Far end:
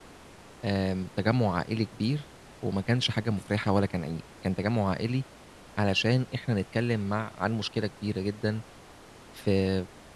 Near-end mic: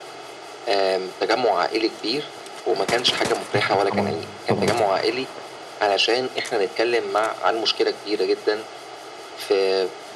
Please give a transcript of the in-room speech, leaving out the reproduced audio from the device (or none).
أكيد طبعًا، طبعًا.